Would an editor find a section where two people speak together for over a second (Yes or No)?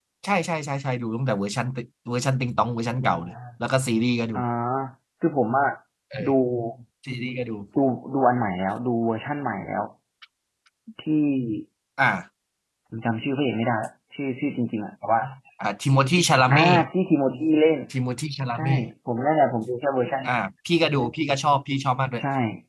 No